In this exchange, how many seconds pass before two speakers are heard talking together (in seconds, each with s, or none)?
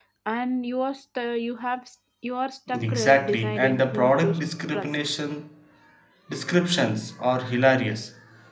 2.7 s